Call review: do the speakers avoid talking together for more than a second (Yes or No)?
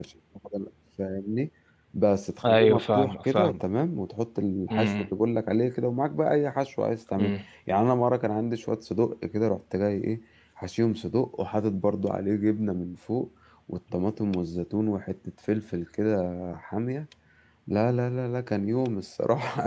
No